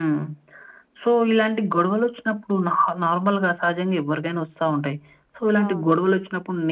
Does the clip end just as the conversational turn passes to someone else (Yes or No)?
No